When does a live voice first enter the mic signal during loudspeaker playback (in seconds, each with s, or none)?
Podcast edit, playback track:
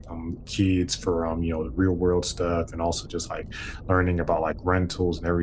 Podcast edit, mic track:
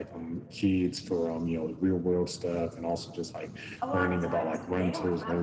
3.8 s